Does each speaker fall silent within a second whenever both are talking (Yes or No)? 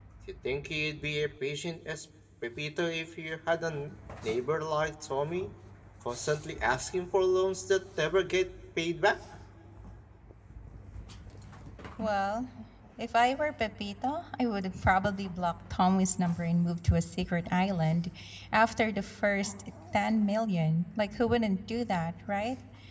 Yes